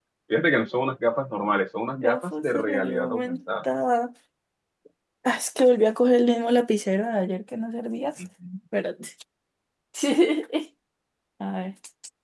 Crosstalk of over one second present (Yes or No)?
Yes